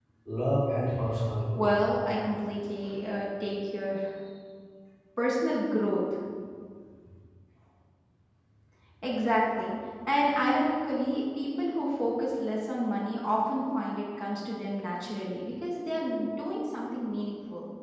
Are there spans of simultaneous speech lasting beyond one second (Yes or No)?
No